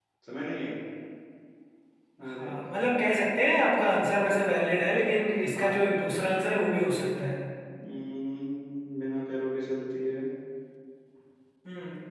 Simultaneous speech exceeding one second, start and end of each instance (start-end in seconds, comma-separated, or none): none